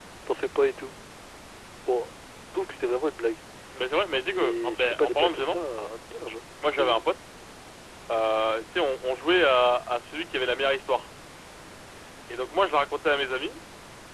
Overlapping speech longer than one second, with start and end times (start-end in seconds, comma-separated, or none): 4.3-5.6